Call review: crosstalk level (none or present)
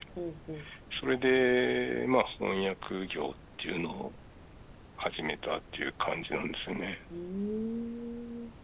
none